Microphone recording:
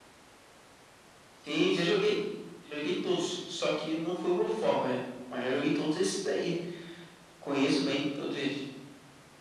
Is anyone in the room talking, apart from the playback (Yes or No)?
No